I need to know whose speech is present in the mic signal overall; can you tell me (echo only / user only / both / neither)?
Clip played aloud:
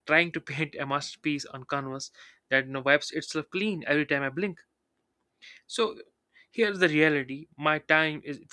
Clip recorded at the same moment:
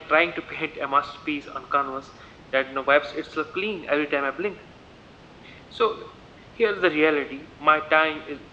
echo only